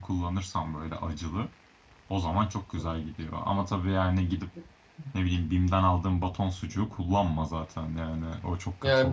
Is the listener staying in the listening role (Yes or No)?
No